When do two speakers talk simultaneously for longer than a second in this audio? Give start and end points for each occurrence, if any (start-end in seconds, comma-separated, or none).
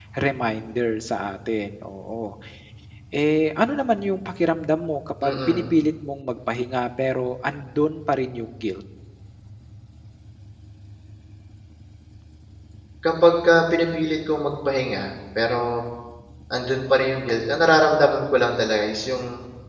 none